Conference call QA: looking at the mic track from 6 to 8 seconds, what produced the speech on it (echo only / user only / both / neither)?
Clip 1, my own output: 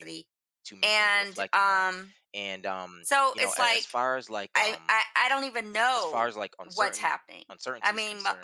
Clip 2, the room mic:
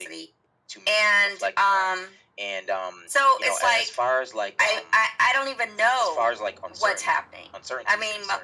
echo only